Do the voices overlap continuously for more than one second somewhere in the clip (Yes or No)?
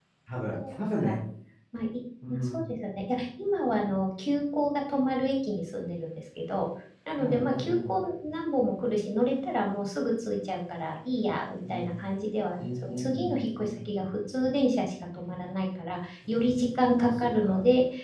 Yes